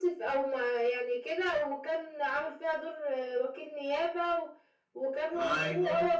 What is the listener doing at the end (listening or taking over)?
listening